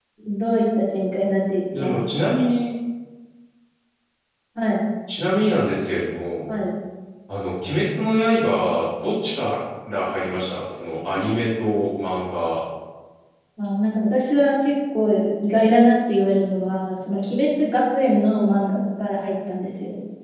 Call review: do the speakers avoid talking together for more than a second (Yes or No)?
Yes